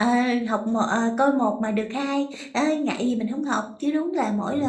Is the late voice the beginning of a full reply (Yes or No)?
No